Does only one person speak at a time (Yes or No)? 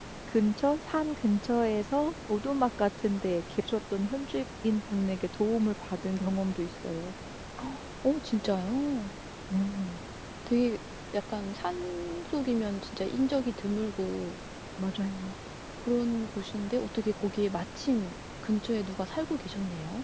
Yes